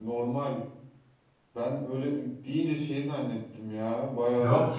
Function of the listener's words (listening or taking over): taking over